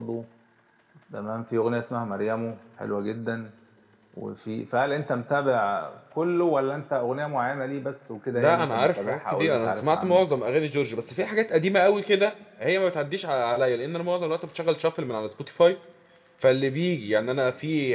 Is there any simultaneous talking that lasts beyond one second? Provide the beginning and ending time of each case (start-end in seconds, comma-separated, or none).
8.3-10.3